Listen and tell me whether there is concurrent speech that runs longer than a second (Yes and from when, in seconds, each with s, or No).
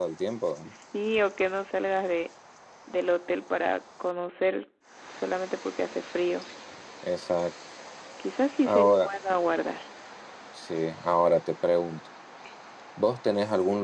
No